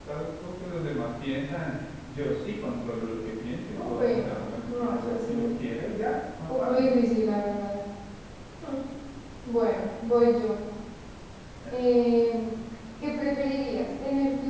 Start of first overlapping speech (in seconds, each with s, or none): 3.7 s